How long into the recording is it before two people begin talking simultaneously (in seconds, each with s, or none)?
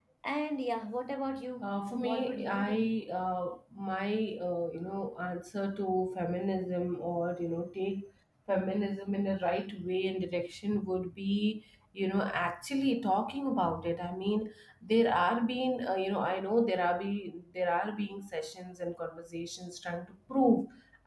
1.6 s